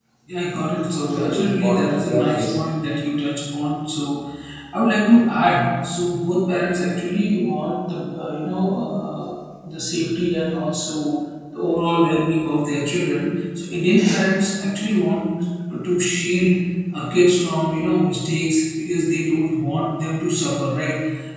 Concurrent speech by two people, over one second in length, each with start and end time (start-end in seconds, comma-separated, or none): 1.1-2.6